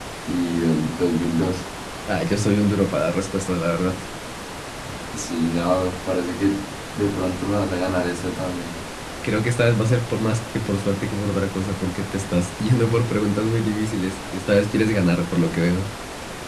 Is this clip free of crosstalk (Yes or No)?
Yes